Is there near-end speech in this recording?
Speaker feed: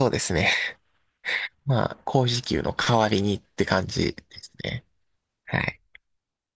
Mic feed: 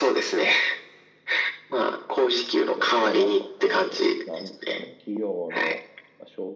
Yes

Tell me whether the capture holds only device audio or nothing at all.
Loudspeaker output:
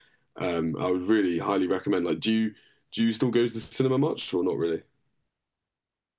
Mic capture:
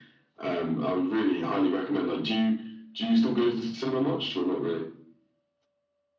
Yes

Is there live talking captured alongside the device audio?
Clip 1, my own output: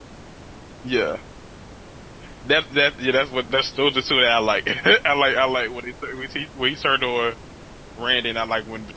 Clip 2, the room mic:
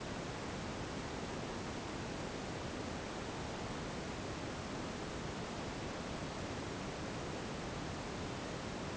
No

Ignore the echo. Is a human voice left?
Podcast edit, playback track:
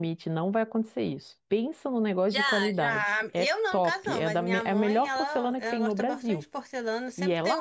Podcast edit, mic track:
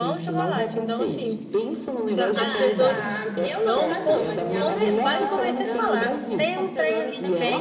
Yes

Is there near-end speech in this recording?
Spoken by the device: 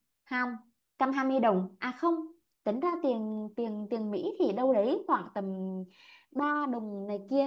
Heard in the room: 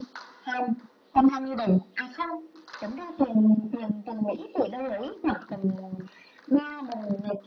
No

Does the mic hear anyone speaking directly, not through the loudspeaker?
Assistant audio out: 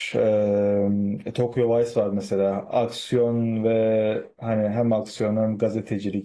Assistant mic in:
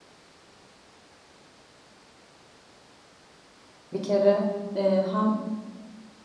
Yes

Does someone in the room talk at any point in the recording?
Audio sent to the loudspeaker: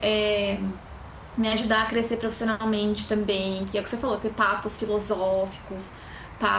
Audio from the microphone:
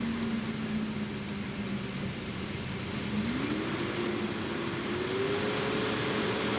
No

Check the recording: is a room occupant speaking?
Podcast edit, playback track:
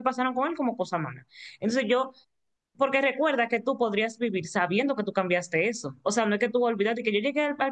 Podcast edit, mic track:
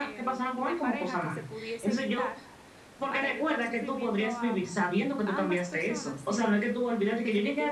Yes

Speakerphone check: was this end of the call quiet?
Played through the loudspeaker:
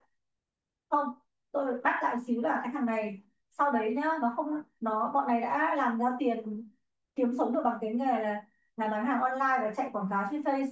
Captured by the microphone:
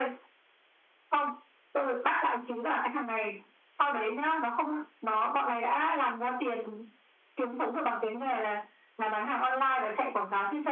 Yes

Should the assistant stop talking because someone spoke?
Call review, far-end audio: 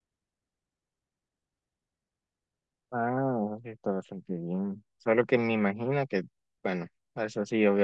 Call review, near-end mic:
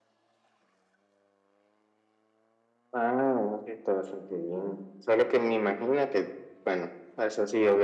No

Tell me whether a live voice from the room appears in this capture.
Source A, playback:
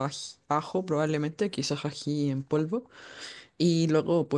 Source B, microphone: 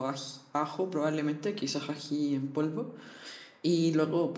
No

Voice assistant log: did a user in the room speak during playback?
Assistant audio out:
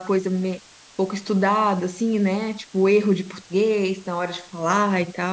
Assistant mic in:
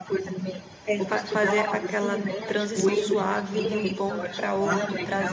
Yes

